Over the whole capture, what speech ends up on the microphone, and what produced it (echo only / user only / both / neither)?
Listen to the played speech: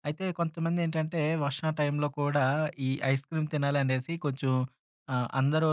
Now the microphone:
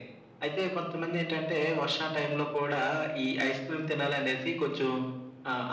echo only